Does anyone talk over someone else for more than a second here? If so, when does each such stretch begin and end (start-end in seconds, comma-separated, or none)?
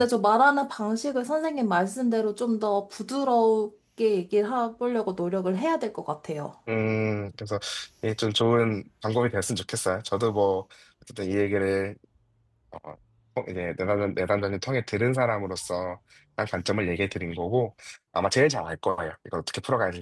none